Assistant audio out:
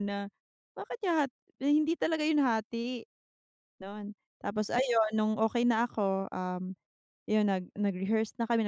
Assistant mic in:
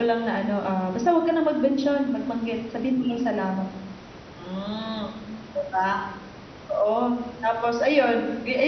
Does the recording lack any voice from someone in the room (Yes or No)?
No